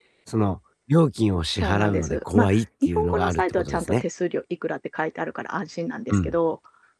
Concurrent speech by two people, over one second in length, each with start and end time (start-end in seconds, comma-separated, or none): 1.5-4.0